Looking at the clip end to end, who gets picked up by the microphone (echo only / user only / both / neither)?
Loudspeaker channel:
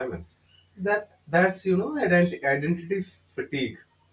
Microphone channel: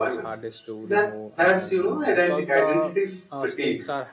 both